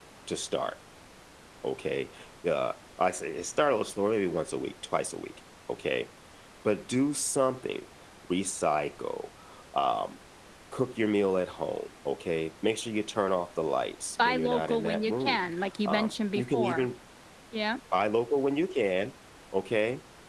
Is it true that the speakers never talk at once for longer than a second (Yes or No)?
No